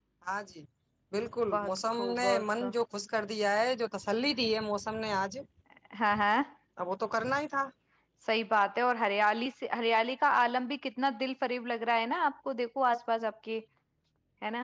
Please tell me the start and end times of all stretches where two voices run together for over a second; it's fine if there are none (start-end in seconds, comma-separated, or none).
1.5-2.7